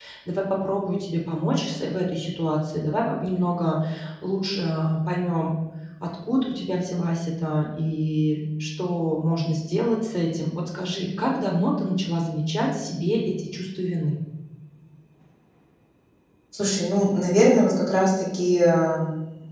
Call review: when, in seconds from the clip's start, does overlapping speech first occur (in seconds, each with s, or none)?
none